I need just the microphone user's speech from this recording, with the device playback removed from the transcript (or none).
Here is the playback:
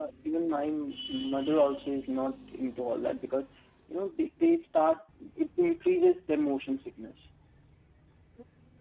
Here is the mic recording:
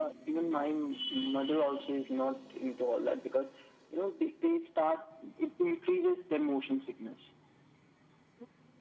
none